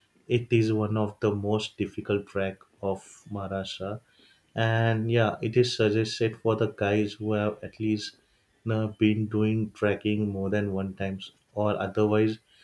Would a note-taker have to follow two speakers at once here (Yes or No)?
No